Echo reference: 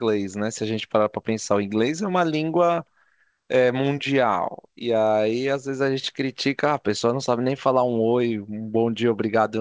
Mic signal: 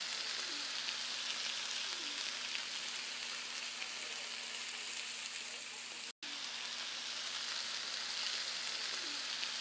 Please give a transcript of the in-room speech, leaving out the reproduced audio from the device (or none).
none